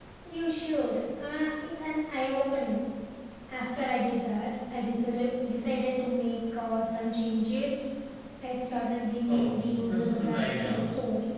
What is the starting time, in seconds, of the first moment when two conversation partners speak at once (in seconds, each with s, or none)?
9.3 s